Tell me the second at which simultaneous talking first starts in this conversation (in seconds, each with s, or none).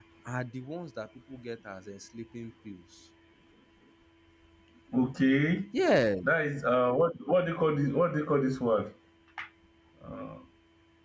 none